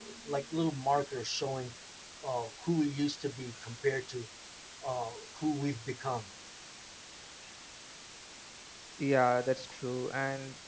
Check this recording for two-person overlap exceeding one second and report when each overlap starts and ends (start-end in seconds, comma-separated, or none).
none